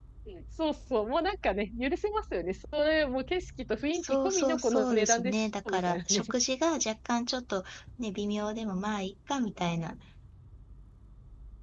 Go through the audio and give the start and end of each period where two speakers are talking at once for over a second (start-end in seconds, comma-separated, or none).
3.9-6.2